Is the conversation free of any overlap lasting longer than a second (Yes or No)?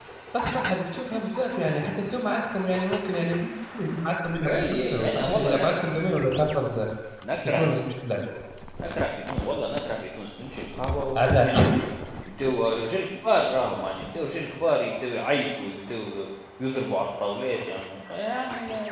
No